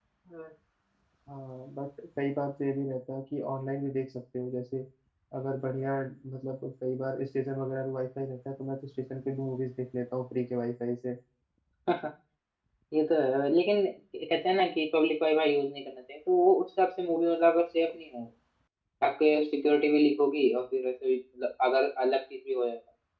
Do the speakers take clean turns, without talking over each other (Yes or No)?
Yes